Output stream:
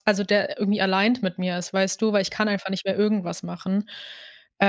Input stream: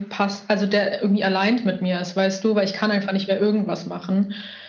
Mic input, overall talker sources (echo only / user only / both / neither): echo only